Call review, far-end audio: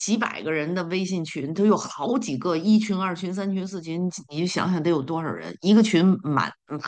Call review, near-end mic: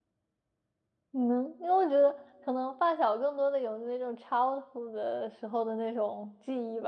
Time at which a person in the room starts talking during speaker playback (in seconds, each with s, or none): 1.1 s